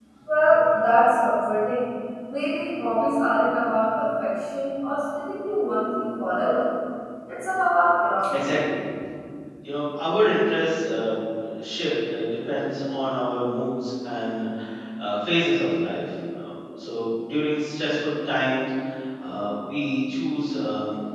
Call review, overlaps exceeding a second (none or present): none